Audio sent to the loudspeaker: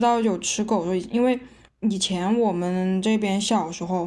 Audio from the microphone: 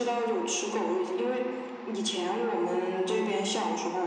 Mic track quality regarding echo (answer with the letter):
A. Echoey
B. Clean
A